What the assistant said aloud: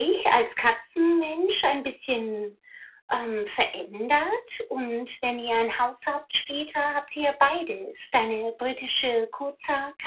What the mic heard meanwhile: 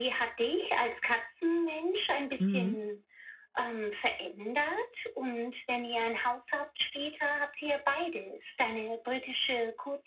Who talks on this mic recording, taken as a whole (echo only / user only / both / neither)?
both